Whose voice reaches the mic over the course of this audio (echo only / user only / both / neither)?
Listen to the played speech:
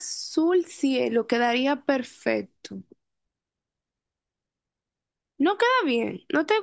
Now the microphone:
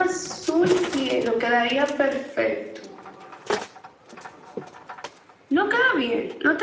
echo only